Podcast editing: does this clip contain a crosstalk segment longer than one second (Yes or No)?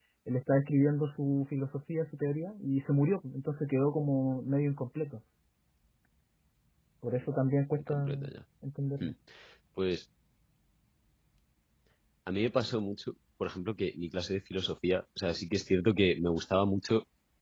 No